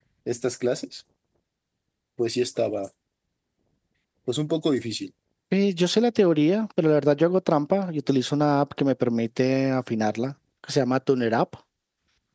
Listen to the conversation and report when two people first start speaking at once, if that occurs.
none

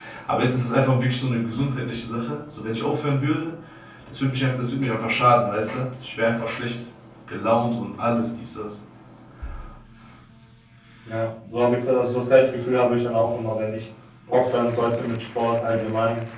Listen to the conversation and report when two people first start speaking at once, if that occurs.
none

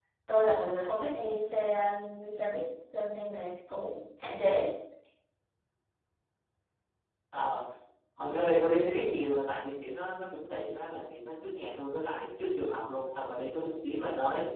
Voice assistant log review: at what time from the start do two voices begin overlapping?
none

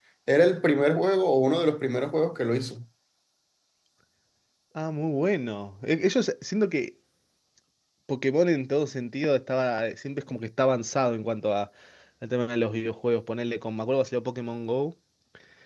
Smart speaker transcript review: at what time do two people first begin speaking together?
none

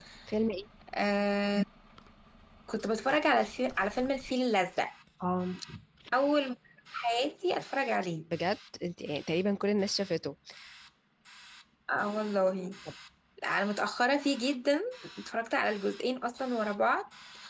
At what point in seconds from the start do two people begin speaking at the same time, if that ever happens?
none

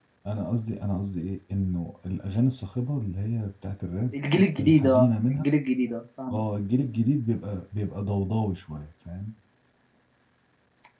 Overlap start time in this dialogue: 4.1 s

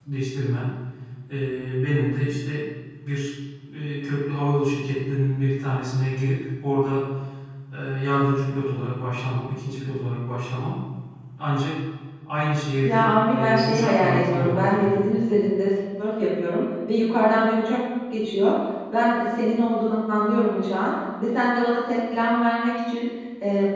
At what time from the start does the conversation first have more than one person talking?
12.8 s

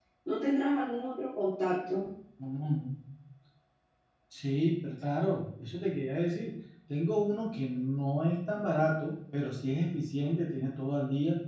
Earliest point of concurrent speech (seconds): none

